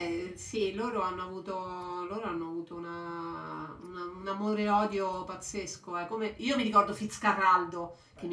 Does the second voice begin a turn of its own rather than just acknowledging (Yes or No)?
No